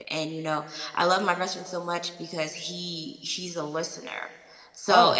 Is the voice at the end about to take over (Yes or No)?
No